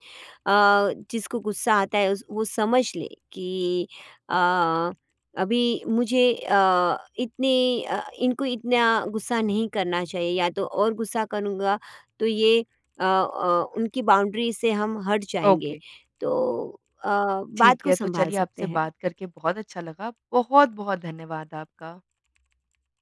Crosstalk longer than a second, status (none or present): present